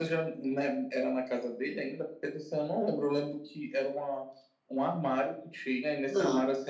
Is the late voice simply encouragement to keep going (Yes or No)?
Yes